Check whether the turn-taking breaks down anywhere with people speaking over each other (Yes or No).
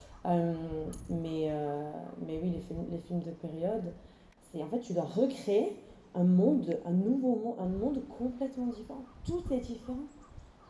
No